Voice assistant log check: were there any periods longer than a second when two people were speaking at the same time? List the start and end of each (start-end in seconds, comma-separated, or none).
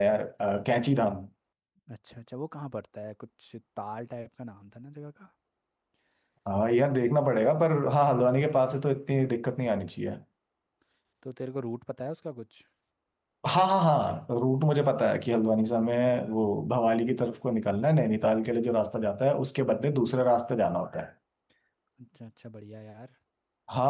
none